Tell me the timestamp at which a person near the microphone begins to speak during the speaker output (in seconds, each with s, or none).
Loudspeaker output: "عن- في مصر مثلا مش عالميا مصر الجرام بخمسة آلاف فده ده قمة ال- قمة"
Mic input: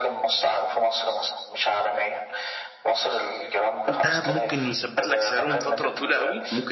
3.9 s